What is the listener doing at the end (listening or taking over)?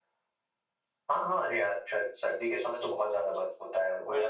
listening